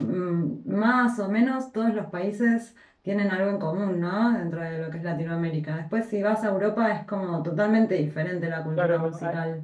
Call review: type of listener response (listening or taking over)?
taking over